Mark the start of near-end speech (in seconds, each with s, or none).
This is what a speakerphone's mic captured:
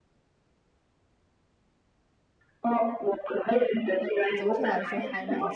4.4 s